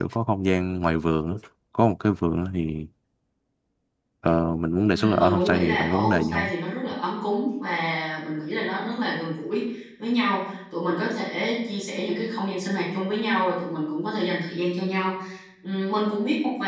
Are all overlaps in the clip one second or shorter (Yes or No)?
No